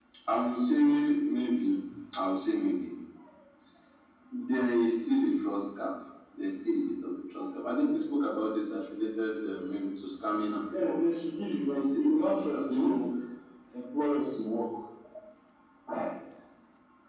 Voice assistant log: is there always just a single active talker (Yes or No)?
No